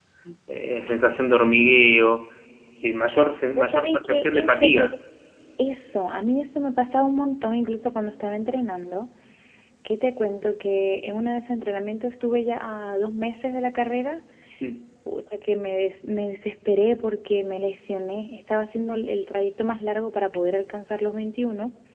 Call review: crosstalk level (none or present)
present